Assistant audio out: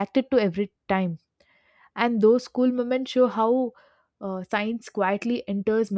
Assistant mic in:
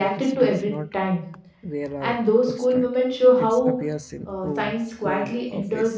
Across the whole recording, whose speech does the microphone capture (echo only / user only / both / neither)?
both